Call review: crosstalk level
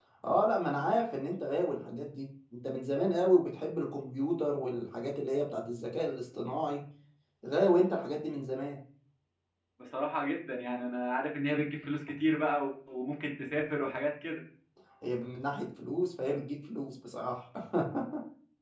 none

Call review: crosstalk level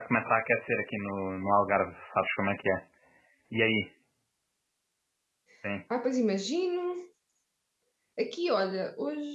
none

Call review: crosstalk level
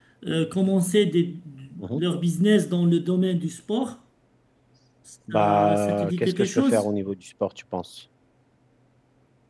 present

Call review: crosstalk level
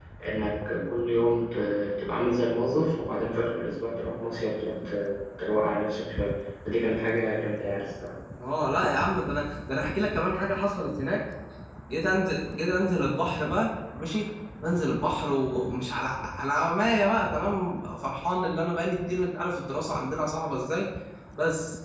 none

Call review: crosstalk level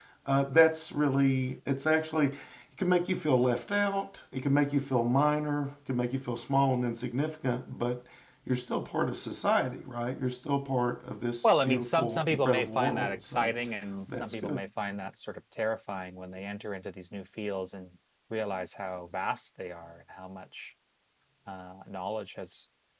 present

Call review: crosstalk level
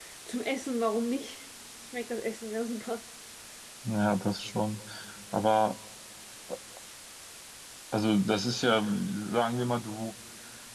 none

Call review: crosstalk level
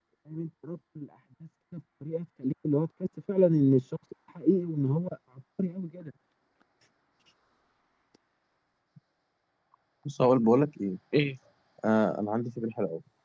none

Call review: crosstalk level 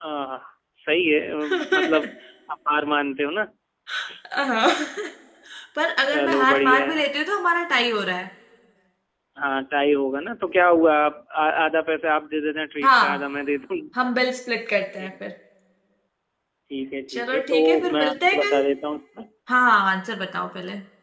present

